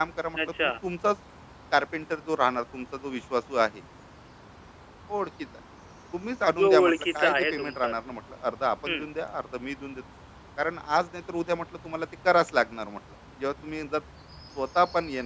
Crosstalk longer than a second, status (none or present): present